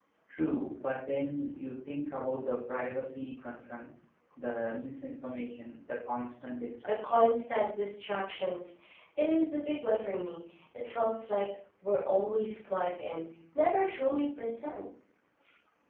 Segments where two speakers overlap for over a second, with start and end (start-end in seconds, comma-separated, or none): none